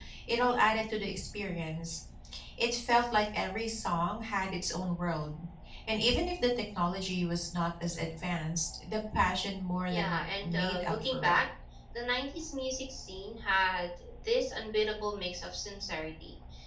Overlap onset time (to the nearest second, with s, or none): 10 s